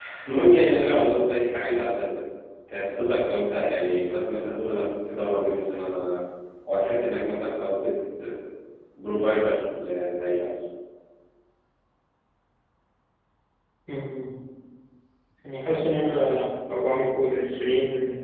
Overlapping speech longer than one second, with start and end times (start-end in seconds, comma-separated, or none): none